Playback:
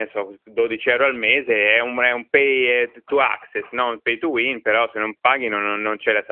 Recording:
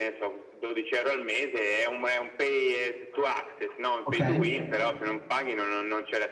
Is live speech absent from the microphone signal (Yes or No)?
No